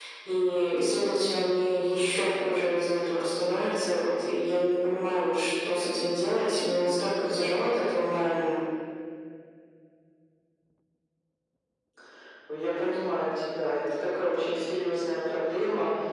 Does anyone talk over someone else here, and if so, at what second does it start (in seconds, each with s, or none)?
none